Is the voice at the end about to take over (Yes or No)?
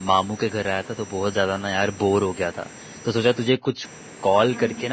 No